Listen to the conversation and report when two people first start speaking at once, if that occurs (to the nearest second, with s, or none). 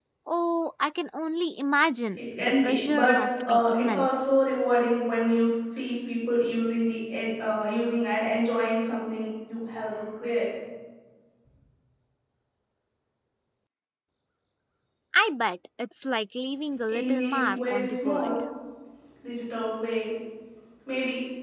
2 s